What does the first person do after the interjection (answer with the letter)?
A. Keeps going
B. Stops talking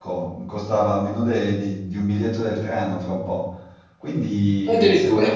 A